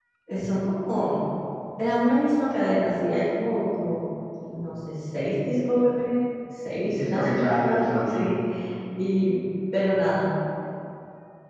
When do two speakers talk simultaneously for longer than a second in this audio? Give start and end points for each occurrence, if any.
7.1-8.3

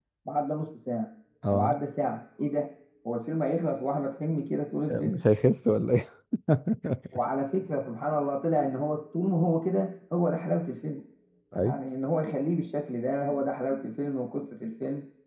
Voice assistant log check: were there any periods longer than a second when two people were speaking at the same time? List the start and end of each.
none

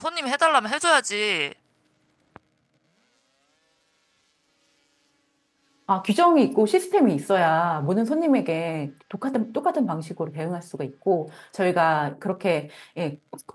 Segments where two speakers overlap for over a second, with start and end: none

